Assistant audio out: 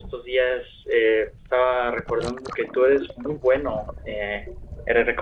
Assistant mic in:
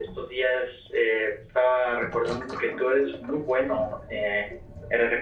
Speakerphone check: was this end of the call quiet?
Yes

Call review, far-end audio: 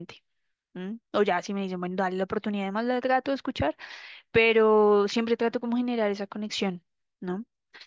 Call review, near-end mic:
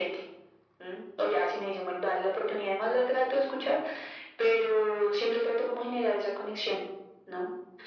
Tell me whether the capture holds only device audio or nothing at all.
Yes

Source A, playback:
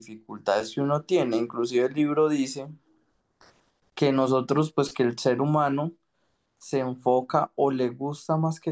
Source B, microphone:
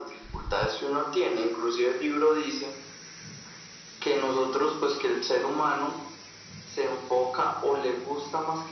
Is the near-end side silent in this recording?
Yes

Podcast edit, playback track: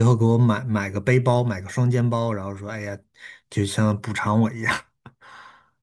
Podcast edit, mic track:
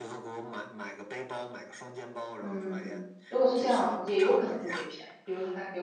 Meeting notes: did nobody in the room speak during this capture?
No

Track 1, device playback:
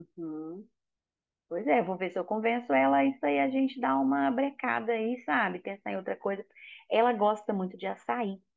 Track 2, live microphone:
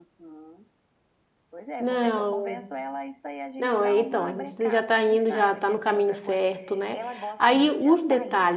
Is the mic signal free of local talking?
No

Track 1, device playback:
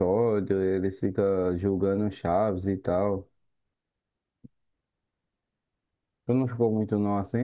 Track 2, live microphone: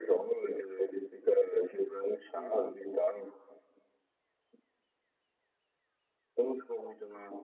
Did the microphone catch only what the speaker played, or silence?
No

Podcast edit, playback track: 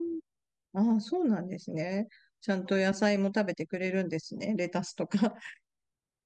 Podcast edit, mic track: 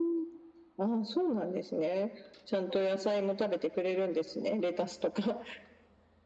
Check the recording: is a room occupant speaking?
No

